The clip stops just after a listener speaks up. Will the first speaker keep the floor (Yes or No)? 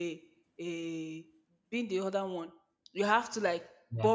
Yes